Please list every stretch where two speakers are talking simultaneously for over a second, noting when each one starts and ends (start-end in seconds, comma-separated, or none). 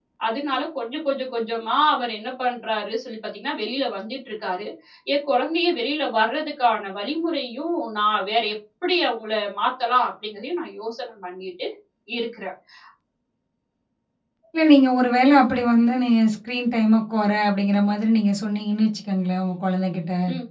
none